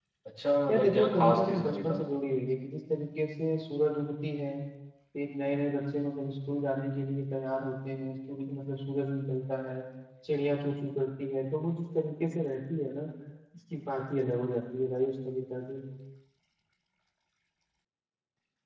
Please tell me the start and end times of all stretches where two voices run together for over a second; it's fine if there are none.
0.7-2.0

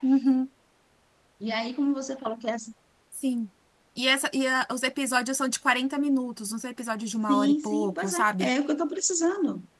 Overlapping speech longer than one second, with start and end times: 7.3-8.5

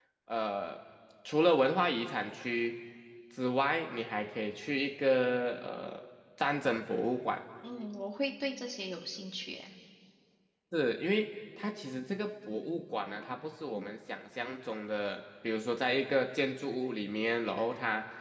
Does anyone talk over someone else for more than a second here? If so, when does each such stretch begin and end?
none

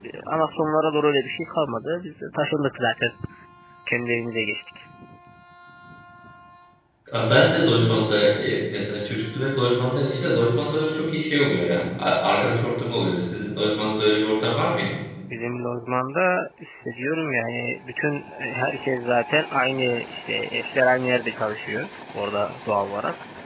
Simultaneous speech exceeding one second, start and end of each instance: none

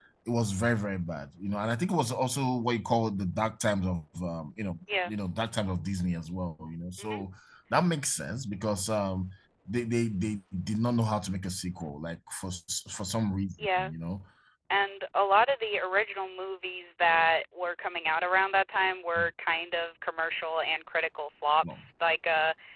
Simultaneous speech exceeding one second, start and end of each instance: none

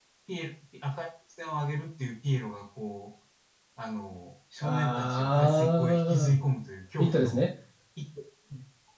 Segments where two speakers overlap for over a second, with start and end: 4.6-6.4

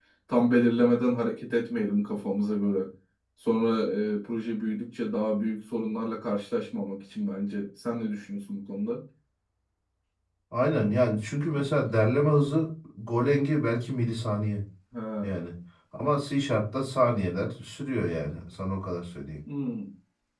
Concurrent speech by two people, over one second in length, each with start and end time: none

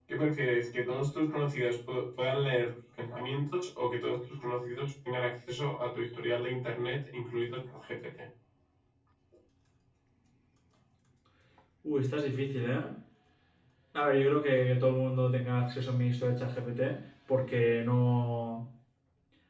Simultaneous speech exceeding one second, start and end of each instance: none

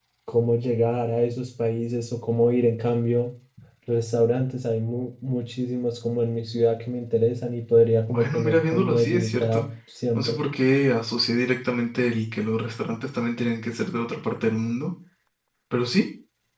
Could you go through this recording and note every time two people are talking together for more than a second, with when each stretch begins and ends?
8.1-9.6

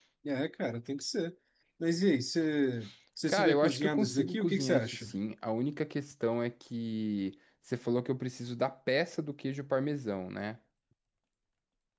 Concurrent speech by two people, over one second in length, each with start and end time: 3.3-5.1

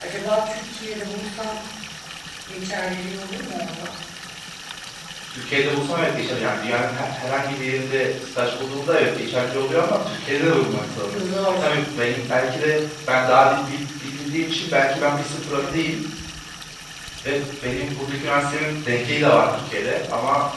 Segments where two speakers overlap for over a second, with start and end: none

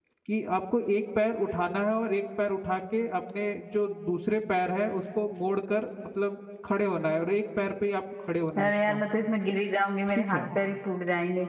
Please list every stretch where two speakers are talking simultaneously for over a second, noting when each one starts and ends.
none

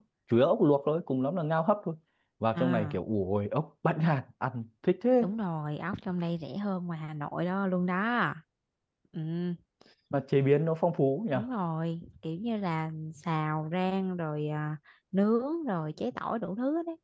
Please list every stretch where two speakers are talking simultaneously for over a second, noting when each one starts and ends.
none

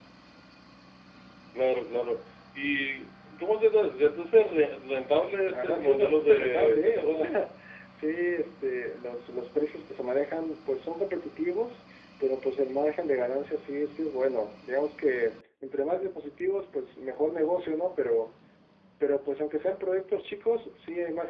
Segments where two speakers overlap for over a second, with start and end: 5.5-7.2

